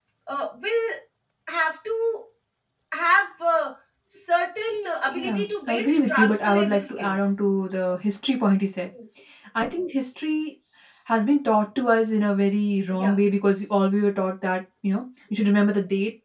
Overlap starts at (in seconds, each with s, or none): 5.1 s